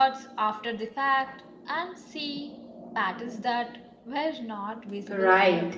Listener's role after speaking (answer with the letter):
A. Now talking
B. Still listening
A